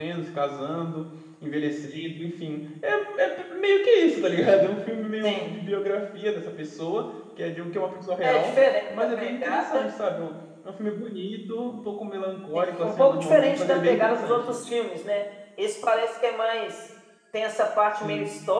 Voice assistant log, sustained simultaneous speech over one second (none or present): present